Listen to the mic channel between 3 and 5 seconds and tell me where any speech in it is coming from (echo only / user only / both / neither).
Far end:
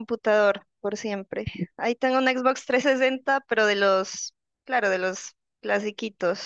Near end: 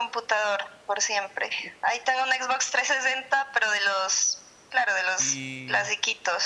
echo only